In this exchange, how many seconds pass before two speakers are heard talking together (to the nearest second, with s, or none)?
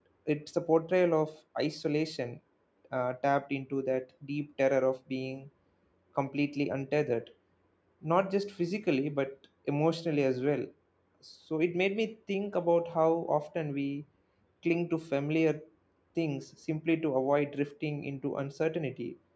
none